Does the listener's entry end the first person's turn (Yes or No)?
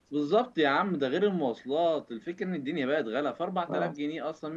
No